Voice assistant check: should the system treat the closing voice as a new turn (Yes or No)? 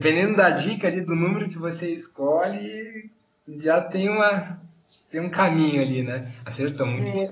Yes